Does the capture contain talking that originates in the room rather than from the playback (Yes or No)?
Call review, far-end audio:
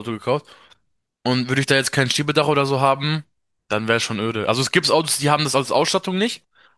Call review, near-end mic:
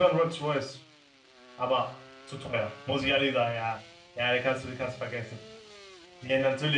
Yes